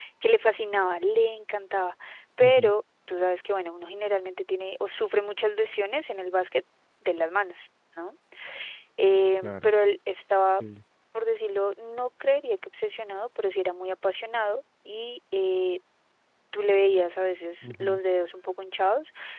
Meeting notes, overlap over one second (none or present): none